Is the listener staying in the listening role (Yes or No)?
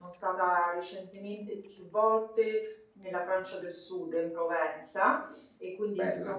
Yes